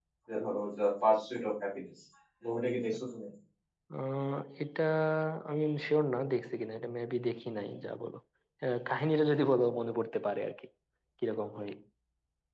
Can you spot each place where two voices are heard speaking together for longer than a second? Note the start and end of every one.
none

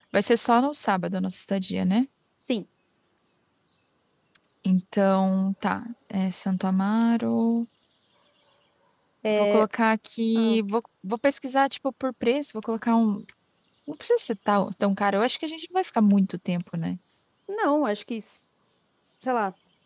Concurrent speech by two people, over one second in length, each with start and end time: none

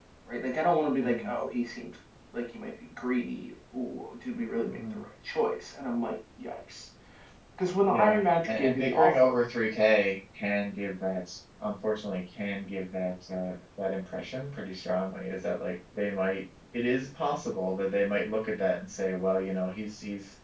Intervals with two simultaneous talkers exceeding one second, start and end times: 7.9-9.4

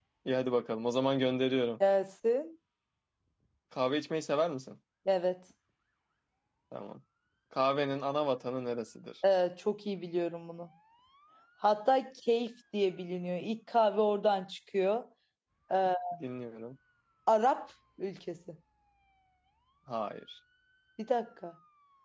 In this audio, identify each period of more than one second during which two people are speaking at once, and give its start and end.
none

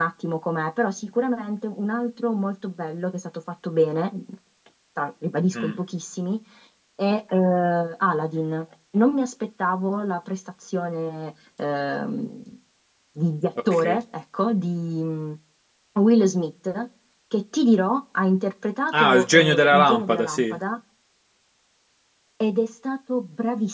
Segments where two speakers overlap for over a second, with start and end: 18.9-20.5

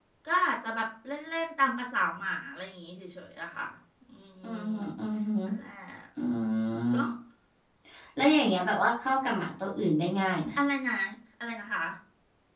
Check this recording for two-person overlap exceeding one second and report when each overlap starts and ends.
none

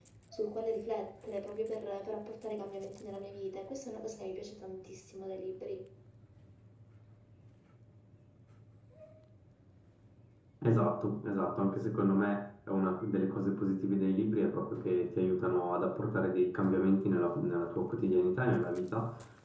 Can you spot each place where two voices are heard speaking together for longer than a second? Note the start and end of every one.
none

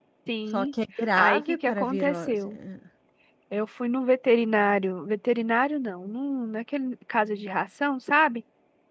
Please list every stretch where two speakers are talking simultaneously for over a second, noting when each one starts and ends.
1.2-2.5

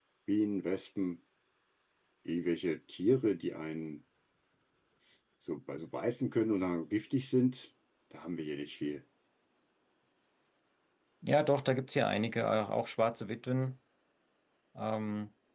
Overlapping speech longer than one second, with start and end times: none

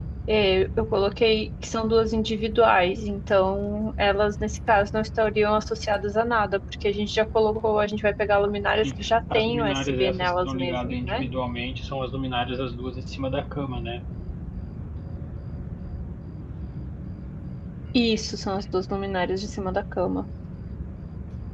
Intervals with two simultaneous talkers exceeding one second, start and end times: 8.8-11.2

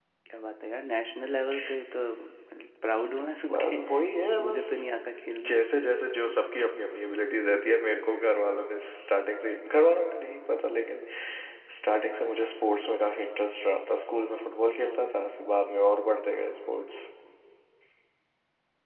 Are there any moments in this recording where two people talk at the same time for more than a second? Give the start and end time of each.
none

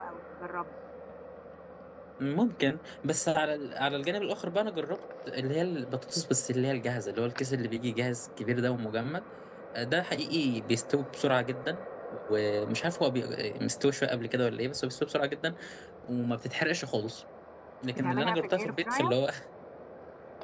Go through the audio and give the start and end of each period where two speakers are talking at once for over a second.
18.0-19.2

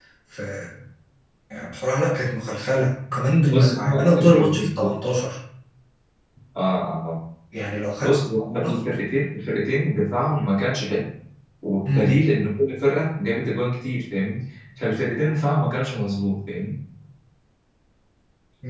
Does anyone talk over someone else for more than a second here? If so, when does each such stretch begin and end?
3.5-4.8

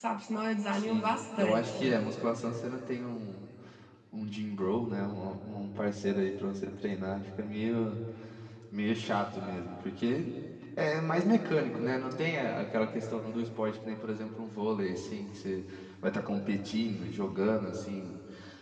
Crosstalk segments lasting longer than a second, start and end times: 0.7-1.9

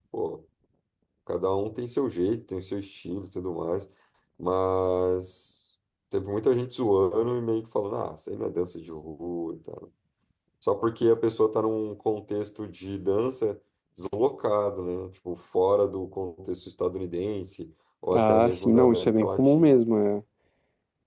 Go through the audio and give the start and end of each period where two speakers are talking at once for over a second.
18.1-19.7

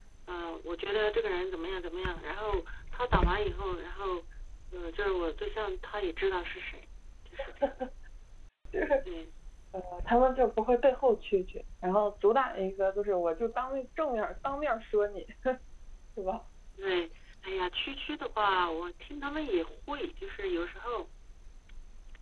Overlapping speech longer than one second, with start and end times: none

